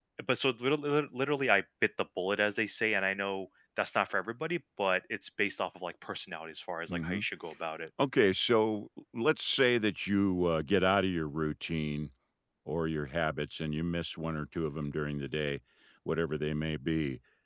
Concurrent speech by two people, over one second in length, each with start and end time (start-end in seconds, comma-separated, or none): none